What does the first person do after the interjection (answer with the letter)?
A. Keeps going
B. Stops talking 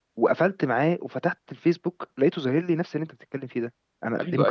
B